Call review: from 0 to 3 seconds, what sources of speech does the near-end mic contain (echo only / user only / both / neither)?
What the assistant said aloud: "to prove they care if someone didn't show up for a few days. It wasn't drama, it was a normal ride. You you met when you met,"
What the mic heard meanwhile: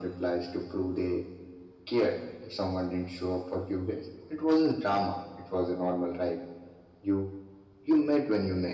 echo only